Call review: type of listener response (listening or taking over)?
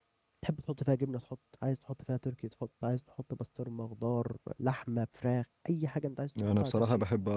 taking over